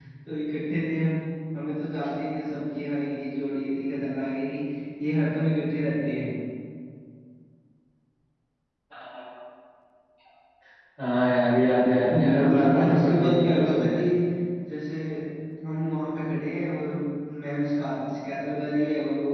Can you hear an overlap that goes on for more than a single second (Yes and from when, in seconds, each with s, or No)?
Yes, from 12.1 s